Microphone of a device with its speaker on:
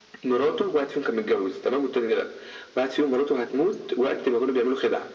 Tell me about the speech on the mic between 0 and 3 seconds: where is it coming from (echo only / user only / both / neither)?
echo only